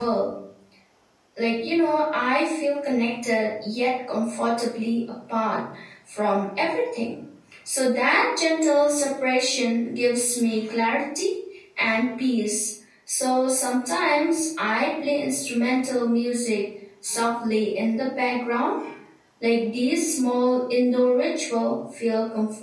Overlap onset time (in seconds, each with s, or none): none